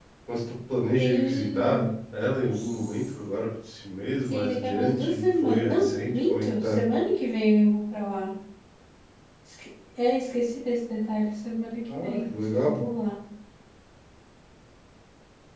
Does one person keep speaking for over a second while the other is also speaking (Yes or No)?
Yes